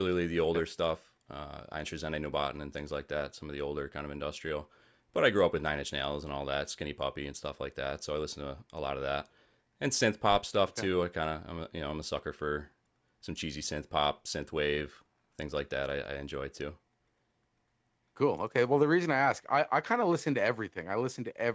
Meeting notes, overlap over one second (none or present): none